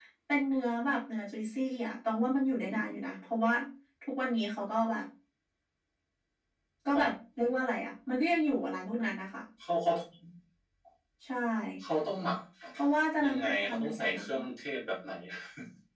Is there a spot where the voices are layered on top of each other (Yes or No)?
Yes